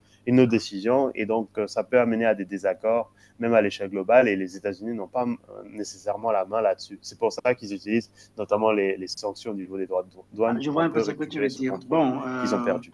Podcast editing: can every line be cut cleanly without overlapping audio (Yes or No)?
No